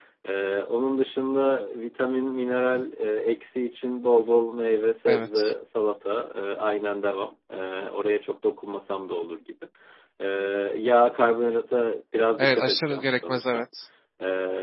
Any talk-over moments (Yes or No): Yes